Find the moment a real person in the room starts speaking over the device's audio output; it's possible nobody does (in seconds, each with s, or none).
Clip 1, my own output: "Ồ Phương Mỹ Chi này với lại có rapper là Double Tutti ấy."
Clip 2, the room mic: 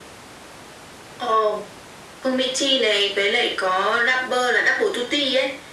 none